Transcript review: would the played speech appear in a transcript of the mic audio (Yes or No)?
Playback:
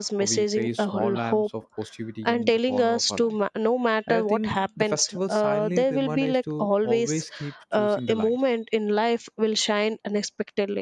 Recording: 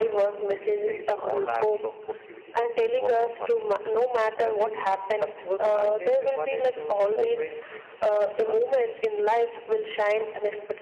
Yes